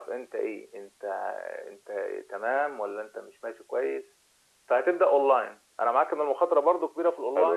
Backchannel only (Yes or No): No